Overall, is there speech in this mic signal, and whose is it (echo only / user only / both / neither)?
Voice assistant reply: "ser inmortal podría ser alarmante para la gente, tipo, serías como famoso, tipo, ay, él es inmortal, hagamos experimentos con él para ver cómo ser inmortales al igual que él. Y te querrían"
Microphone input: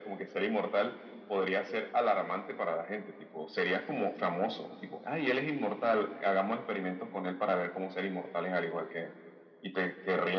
echo only